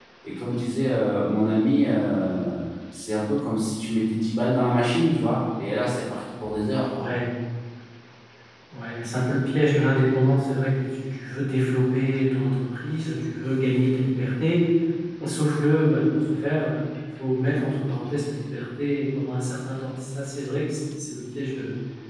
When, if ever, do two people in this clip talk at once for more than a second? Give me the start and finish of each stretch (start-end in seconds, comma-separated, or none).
none